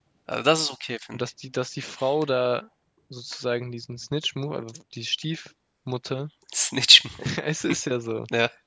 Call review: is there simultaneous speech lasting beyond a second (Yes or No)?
No